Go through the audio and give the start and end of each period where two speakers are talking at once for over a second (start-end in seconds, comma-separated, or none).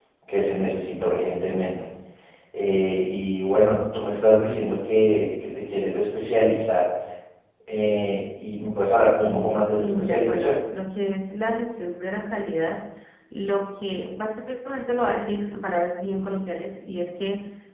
9.2-10.6